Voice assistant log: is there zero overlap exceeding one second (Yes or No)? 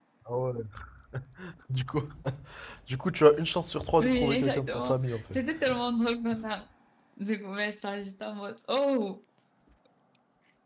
No